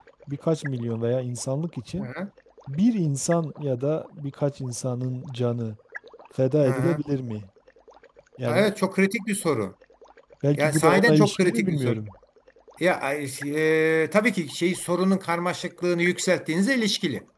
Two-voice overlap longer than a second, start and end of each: 10.6-12.0

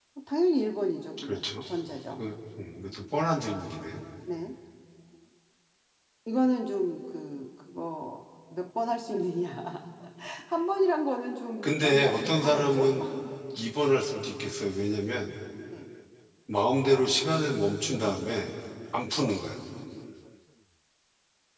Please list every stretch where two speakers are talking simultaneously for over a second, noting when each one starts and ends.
11.6-12.9

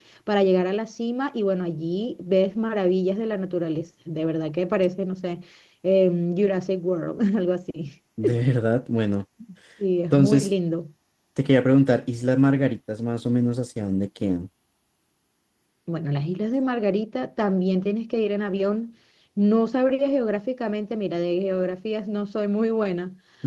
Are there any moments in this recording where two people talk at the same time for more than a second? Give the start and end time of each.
none

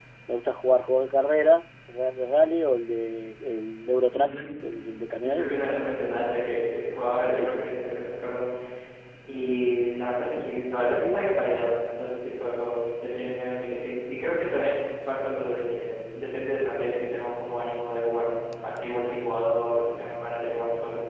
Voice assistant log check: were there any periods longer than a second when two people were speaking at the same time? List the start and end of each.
none

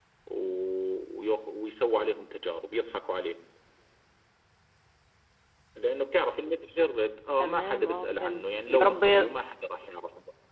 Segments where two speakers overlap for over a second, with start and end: 7.4-9.0

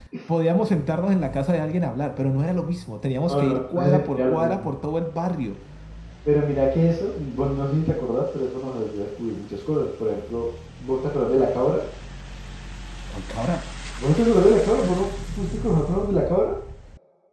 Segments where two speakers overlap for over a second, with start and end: 3.3-4.7

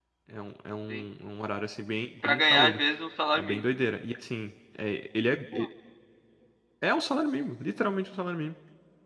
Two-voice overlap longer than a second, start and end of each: none

